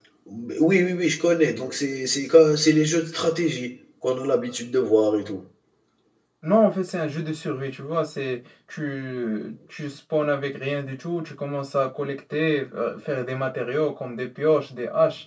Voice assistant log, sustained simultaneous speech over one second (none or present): none